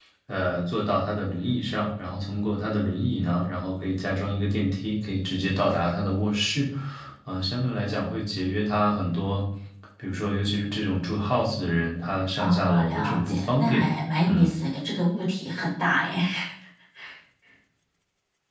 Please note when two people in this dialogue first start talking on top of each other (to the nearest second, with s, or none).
12 s